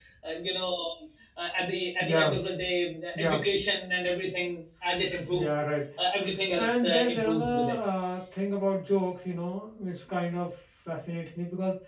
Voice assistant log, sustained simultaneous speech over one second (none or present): present